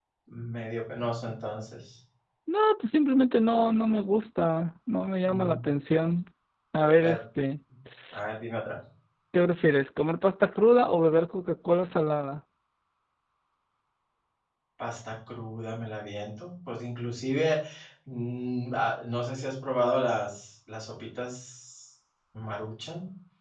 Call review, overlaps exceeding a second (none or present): none